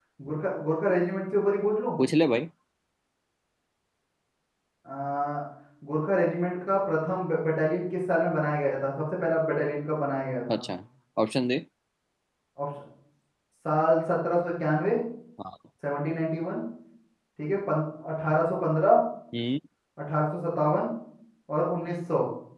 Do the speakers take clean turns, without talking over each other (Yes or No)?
Yes